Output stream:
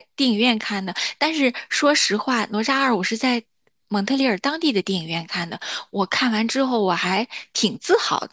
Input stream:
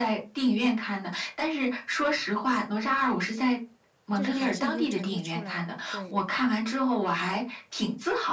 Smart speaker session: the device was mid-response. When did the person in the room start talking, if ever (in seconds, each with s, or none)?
4.1 s